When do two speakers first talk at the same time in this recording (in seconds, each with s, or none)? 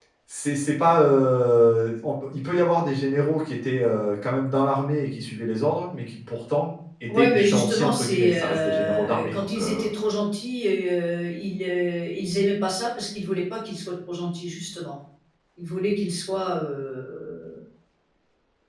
7.1 s